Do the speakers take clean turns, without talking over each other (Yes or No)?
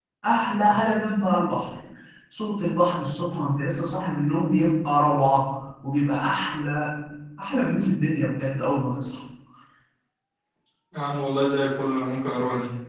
Yes